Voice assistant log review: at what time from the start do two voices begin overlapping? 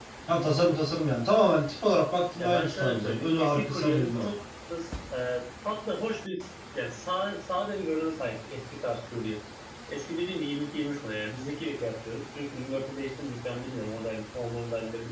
2.4 s

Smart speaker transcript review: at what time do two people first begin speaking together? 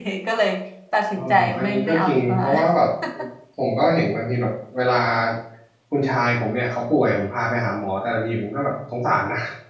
1.1 s

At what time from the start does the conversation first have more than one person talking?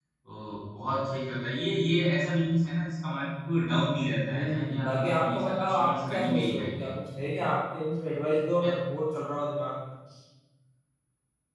4.3 s

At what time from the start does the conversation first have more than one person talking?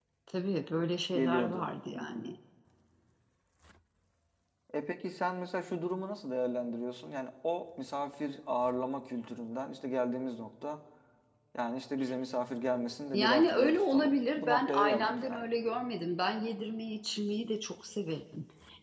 1.1 s

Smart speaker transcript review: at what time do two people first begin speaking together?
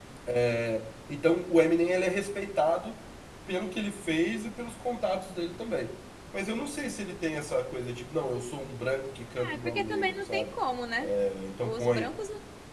9.4 s

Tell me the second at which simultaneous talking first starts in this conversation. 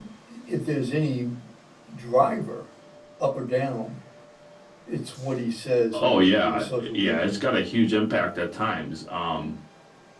5.9 s

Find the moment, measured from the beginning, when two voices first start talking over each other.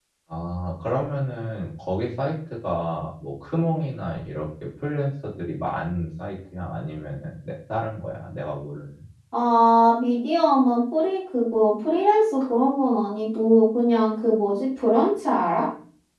none

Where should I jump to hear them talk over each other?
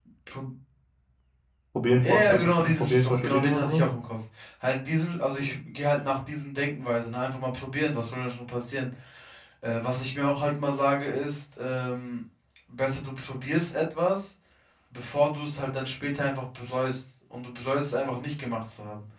2.0 s

